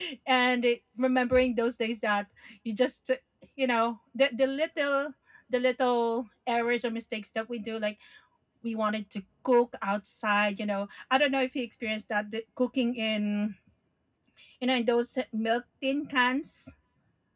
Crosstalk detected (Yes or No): No